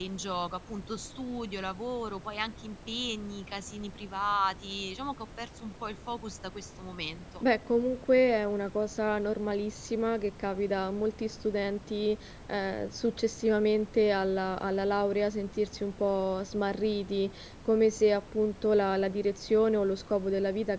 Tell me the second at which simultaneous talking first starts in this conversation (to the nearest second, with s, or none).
none